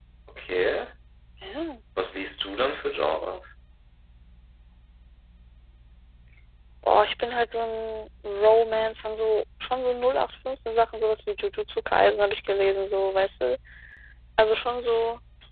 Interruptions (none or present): none